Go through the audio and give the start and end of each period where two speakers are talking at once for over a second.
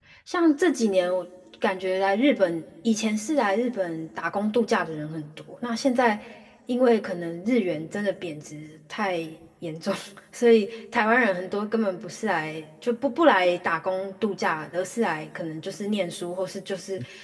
none

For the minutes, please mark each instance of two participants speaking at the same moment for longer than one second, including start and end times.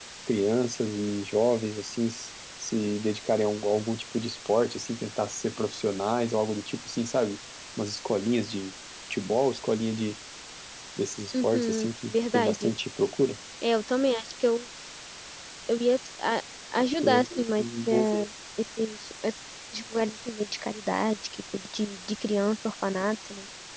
11.4-12.7, 17.0-18.3

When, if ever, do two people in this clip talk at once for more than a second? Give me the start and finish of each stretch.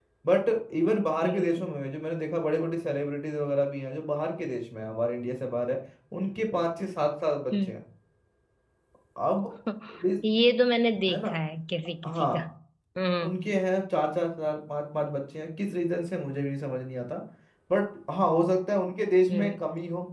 none

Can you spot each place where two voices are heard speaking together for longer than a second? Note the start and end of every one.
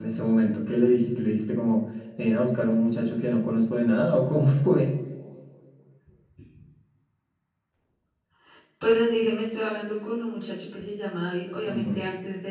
none

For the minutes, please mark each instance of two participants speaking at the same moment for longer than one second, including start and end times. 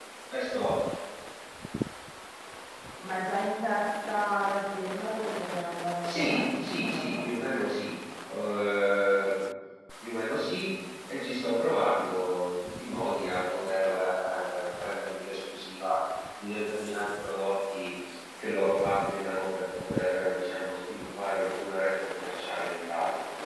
6.0-7.2

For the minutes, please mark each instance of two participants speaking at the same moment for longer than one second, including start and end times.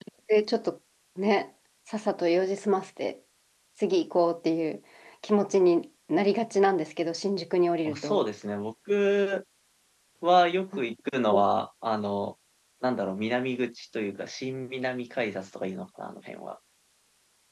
none

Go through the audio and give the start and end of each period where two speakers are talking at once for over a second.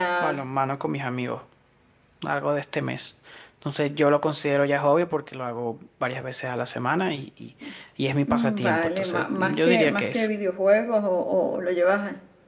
8.3-10.3

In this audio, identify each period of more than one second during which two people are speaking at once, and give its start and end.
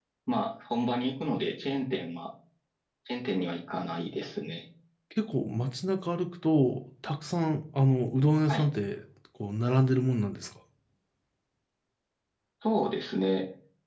none

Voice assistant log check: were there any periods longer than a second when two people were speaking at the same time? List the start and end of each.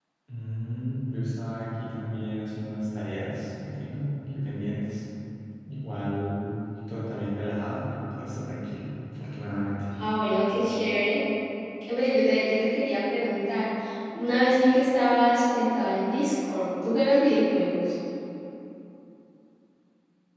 none

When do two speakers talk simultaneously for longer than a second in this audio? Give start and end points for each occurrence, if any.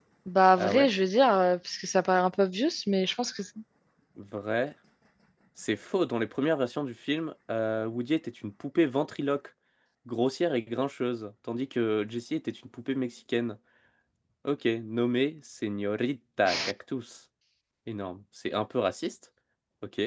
none

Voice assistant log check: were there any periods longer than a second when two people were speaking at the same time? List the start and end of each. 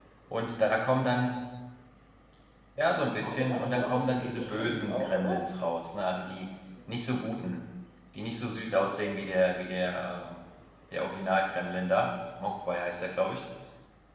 3.1-5.4

